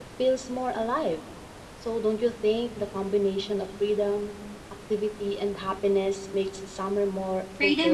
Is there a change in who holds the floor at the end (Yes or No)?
Yes